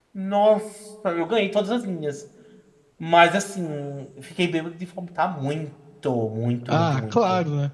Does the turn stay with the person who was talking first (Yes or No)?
No